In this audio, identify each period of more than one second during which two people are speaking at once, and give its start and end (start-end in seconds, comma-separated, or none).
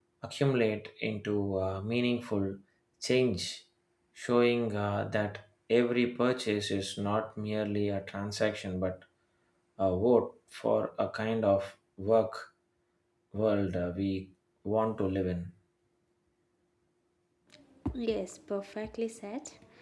none